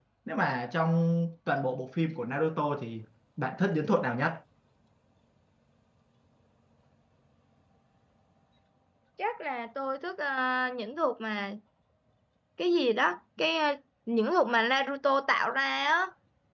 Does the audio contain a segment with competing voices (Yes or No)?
No